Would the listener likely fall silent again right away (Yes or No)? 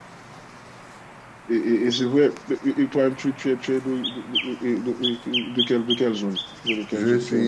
No